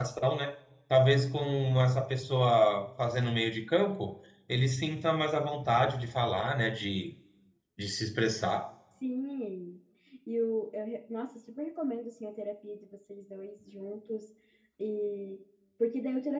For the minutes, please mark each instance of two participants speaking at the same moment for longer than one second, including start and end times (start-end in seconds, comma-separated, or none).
none